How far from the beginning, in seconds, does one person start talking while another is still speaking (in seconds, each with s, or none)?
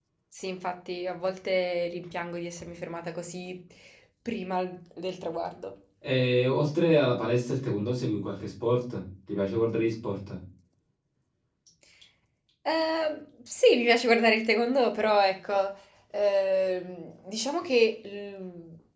none